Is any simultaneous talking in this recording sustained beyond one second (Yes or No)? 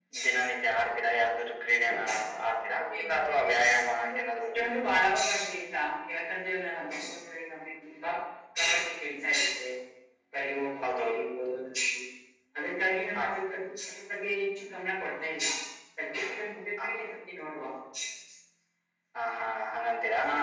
Yes